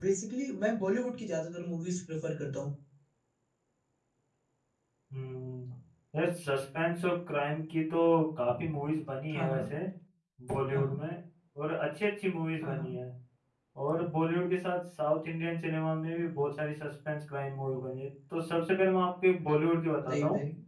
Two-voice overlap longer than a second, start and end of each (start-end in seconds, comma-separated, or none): none